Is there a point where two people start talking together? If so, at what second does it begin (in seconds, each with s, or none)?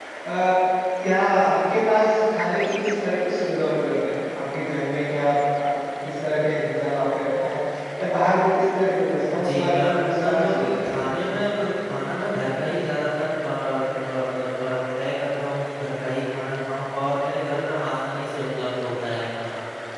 9.3 s